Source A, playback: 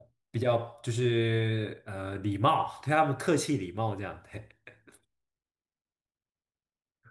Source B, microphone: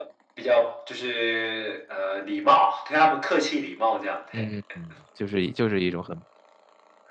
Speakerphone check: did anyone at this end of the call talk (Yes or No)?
Yes